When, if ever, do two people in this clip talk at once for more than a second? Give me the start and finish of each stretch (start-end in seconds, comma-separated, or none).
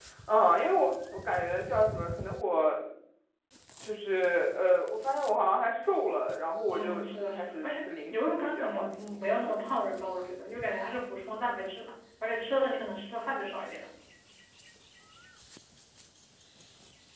6.7-9.2